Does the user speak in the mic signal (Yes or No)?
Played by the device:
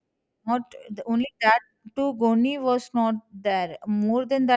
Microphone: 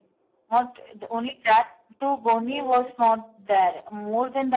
Yes